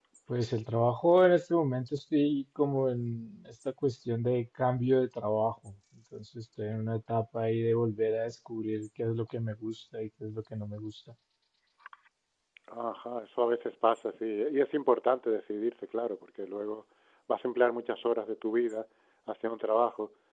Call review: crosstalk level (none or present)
none